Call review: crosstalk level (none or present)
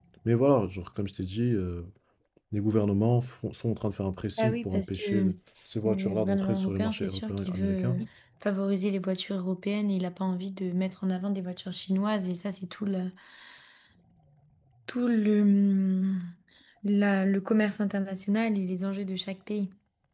present